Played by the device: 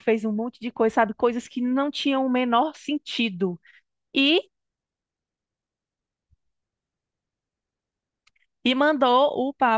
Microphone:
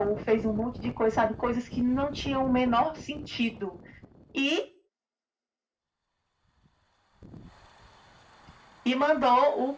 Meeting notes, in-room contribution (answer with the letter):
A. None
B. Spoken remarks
A